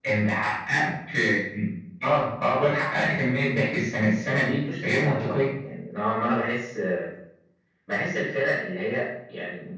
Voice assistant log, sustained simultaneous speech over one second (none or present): present